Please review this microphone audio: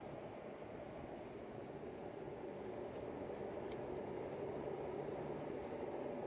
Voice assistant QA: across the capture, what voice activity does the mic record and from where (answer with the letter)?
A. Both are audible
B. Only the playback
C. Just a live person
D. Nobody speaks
D